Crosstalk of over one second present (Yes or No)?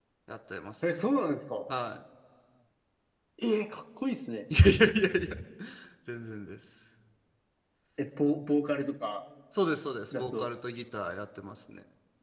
No